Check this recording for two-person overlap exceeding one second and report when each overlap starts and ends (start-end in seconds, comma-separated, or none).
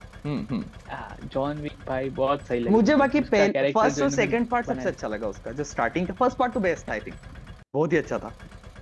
2.7-4.3